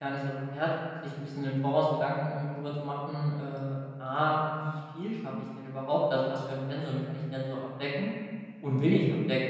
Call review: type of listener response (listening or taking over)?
listening